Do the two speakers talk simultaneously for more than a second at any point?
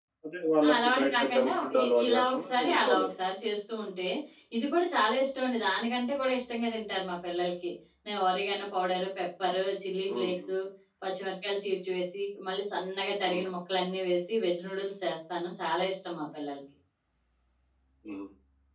Yes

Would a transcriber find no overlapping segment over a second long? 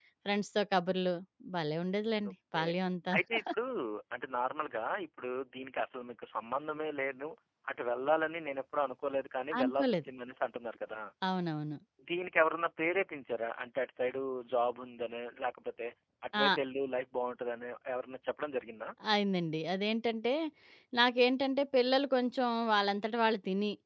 Yes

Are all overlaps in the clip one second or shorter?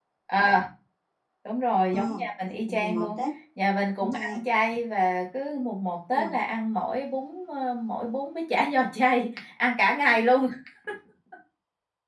No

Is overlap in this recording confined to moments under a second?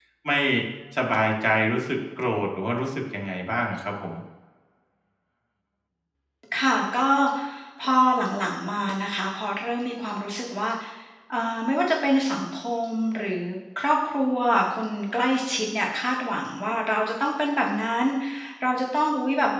Yes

